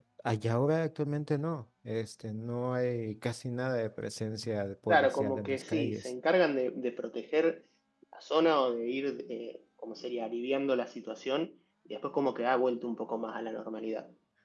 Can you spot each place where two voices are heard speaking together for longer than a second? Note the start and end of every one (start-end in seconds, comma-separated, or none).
4.9-6.1